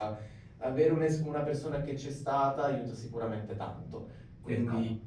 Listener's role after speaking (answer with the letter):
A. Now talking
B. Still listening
B